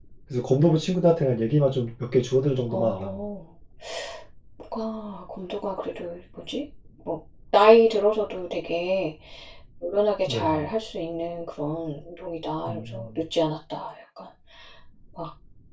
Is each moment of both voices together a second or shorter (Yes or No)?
Yes